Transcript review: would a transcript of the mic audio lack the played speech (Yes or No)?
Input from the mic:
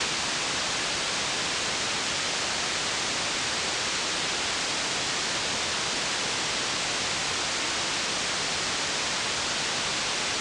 Yes